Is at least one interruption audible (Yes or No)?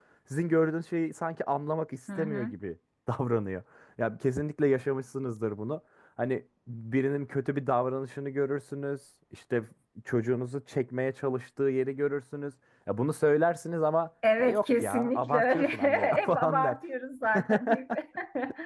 Yes